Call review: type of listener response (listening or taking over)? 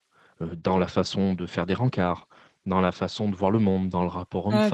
taking over